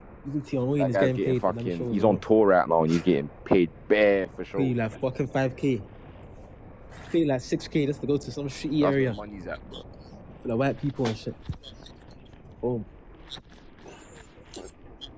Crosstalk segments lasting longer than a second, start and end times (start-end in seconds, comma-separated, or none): 0.8-2.2